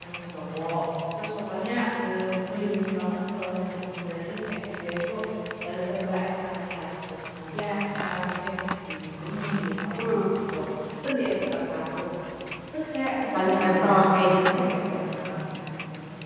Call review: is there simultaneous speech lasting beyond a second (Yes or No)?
Yes